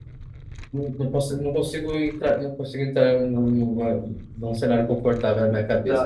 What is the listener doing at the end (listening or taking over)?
taking over